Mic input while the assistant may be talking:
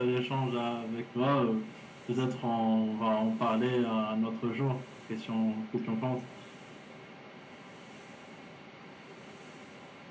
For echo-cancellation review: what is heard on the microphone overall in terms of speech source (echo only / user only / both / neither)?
echo only